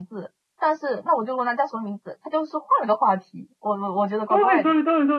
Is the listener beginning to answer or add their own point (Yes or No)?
Yes